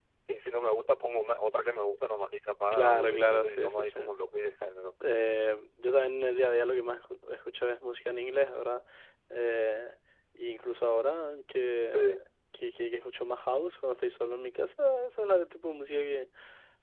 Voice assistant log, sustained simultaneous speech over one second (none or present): present